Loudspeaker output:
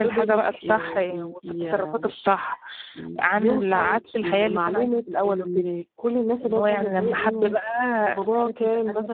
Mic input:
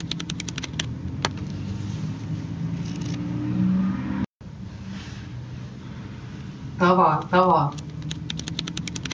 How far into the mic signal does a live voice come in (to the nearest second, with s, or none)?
7 s